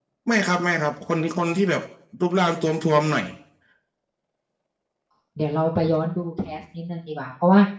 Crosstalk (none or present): none